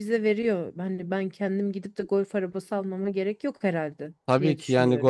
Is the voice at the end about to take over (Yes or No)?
Yes